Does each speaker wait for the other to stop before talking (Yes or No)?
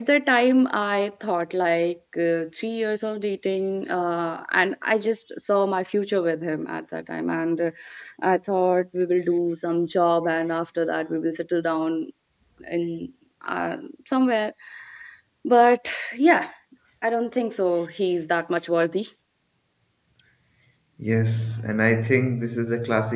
Yes